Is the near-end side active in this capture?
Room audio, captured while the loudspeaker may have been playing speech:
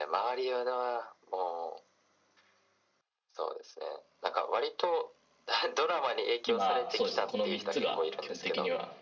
Yes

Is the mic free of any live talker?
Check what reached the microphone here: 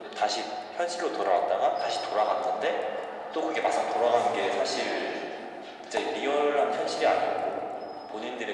Yes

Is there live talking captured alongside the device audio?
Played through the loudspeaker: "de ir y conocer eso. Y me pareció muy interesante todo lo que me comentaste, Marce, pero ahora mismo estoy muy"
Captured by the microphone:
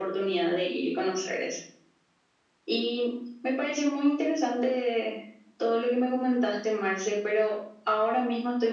No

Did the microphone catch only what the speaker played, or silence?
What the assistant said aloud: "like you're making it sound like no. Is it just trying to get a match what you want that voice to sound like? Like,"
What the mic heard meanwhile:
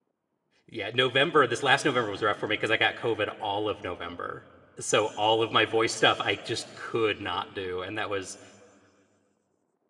No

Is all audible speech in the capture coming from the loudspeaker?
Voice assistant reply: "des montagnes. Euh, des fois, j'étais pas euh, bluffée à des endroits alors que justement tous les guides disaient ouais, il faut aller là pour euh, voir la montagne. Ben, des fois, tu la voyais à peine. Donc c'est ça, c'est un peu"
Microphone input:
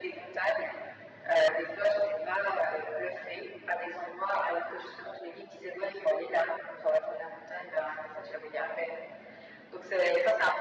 Yes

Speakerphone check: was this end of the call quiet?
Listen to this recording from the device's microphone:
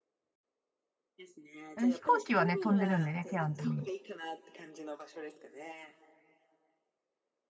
No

